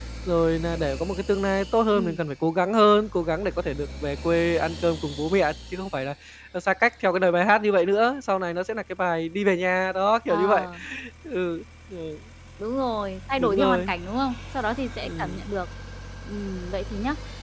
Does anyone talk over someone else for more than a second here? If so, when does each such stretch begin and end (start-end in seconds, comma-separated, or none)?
none